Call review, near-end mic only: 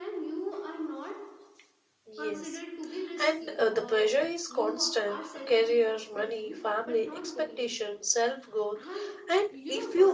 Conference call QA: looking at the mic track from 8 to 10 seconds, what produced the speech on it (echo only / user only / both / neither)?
both